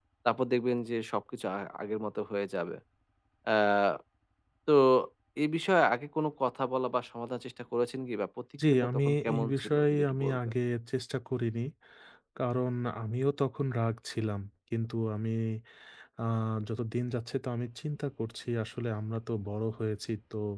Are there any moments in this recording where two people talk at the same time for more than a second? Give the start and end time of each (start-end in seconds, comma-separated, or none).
8.7-10.4